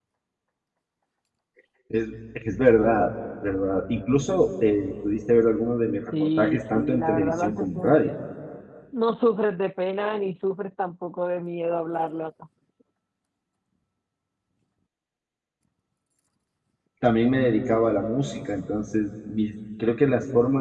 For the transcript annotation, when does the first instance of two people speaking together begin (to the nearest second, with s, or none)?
6 s